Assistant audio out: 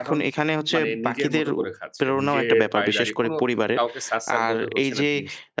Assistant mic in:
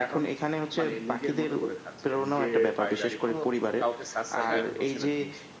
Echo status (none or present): present